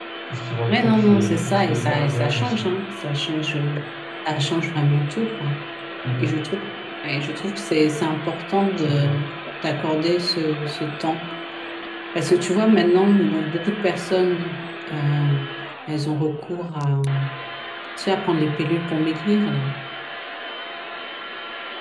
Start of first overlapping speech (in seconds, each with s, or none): 0.7 s